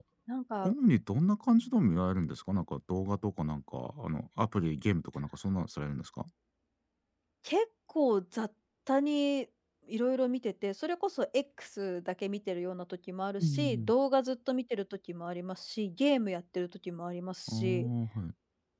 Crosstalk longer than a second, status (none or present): none